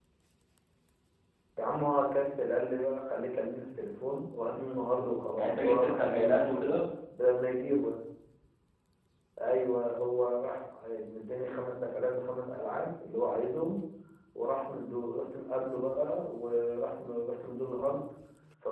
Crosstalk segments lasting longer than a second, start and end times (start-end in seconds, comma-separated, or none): 5.4-6.8